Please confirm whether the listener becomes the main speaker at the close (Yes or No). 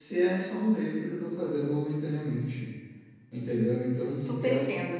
No